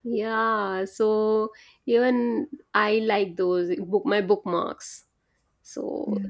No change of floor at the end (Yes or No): No